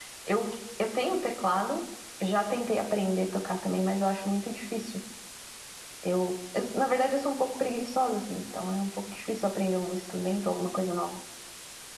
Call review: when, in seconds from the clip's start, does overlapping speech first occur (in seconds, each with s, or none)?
none